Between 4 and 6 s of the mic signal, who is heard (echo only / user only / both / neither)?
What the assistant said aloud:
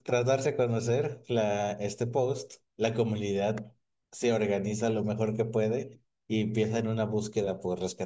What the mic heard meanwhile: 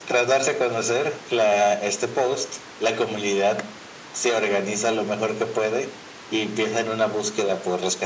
echo only